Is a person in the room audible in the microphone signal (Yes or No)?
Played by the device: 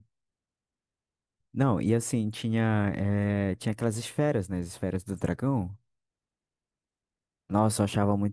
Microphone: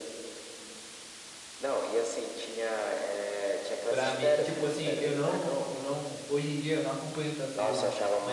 Yes